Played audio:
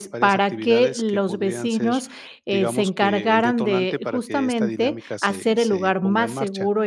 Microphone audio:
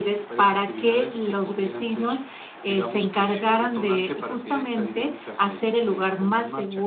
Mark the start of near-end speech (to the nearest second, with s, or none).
none